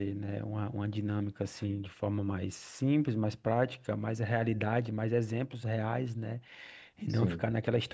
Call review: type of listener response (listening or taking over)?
listening